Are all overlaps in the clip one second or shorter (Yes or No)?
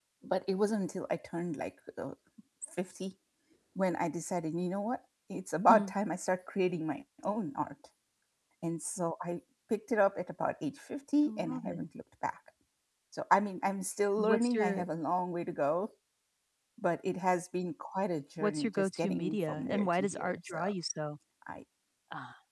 No